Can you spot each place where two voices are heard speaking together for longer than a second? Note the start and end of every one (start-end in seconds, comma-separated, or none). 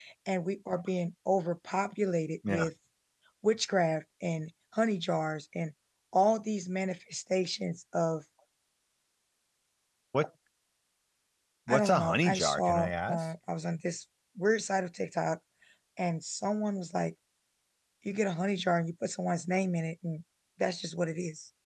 11.7-13.2